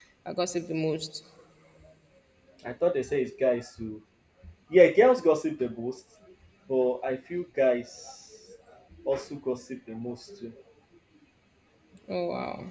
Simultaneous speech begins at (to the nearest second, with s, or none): none